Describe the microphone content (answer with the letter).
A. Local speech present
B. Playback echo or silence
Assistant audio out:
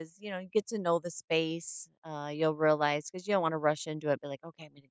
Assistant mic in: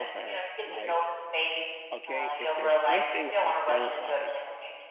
A